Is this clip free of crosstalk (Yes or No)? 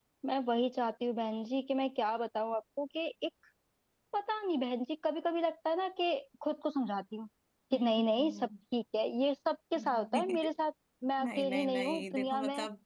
No